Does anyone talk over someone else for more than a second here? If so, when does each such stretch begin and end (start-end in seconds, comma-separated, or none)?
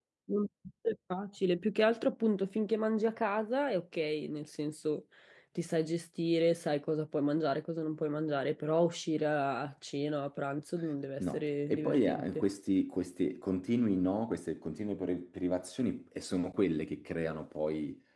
11.2-12.4